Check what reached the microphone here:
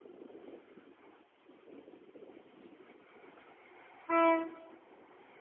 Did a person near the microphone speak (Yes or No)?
No